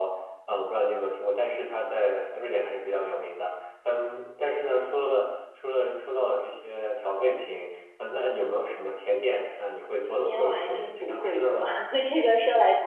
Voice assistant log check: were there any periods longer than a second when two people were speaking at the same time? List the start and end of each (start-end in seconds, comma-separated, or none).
10.1-11.6